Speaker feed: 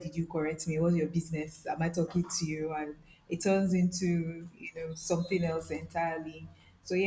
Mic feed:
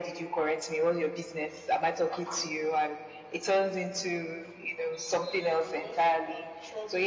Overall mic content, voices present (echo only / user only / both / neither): both